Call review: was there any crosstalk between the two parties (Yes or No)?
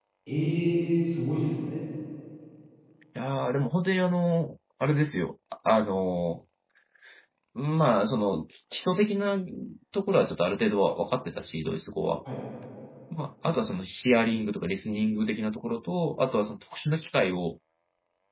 No